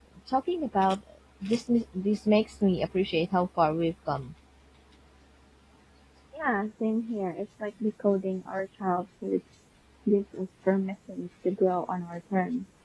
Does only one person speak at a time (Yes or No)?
Yes